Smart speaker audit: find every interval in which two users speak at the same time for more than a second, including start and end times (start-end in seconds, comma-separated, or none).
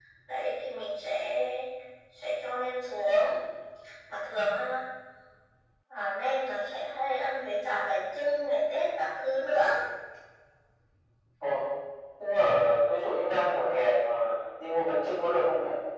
none